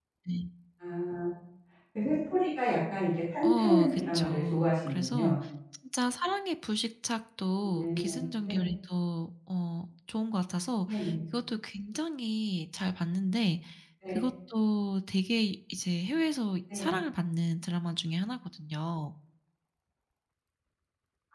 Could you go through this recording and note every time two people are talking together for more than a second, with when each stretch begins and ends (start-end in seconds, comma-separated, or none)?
3.4-5.4